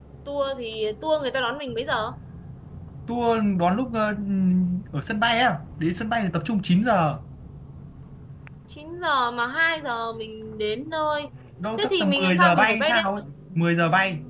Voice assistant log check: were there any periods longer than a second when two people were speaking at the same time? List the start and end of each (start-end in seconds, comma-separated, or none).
11.8-13.1